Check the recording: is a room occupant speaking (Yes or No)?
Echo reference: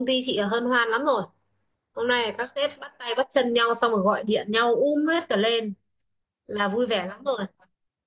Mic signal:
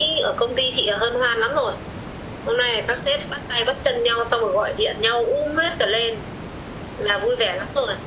No